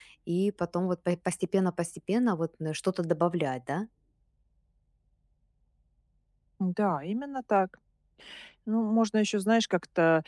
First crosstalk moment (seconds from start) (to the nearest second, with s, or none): none